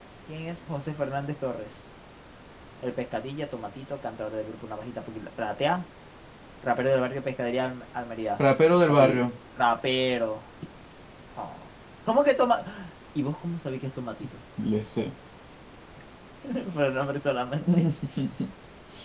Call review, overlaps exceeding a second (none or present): none